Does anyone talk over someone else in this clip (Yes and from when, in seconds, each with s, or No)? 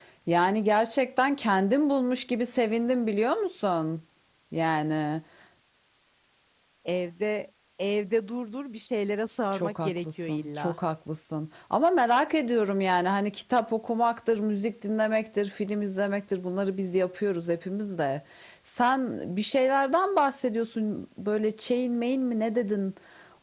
Yes, from 9.5 s